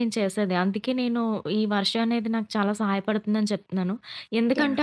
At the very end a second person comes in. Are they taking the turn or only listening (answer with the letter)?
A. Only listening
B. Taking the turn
A